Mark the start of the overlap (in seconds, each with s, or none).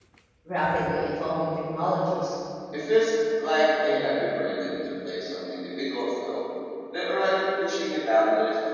none